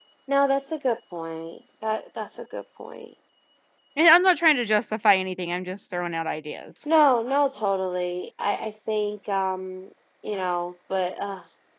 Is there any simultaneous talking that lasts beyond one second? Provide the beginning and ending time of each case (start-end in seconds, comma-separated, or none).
none